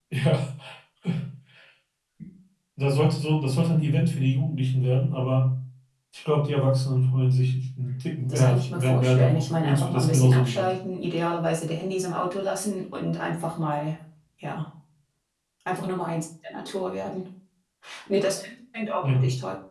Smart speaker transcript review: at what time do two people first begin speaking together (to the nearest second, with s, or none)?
8 s